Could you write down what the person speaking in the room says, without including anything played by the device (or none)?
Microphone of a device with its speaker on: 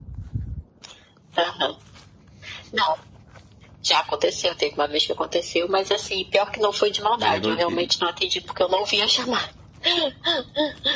gerou inte